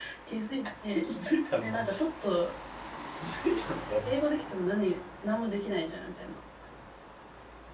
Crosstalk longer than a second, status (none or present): none